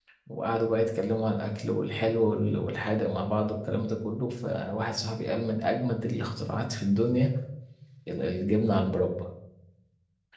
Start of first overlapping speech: none

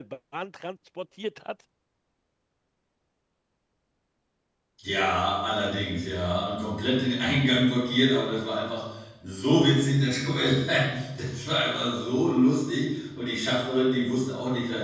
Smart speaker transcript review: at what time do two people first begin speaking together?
none

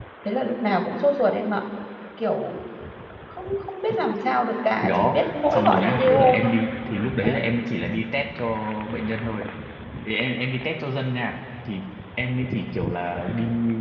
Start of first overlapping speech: 4.8 s

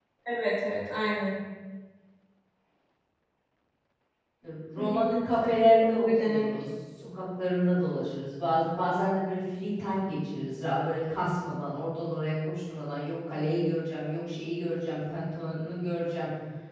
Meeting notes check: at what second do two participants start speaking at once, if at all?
4.8 s

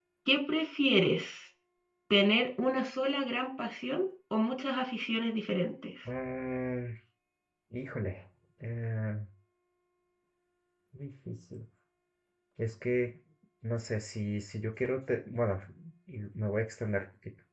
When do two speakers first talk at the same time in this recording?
none

